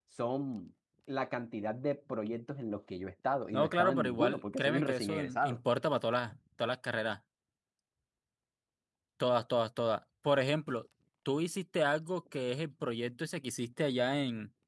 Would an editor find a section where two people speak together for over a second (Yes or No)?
Yes